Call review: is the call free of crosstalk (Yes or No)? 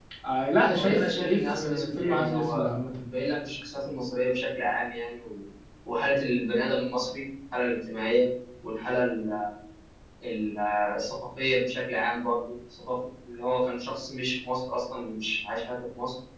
No